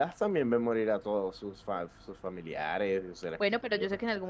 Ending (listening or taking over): taking over